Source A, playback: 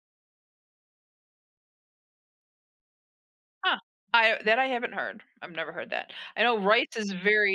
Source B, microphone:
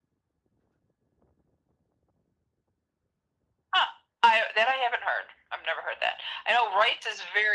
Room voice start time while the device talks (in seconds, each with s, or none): none